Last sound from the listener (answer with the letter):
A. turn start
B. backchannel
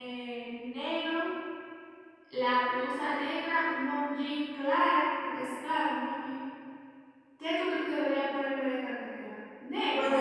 A